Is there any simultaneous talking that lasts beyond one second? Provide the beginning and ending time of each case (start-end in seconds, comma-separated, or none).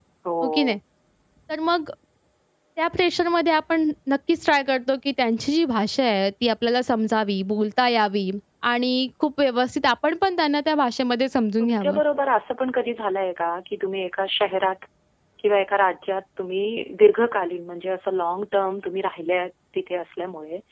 none